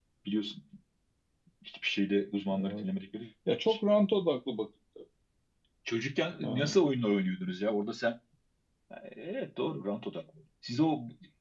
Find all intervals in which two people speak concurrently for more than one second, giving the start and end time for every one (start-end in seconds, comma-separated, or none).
none